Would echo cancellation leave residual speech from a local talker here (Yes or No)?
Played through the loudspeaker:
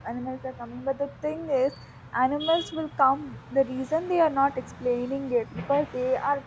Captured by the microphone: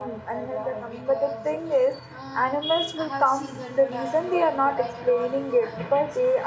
Yes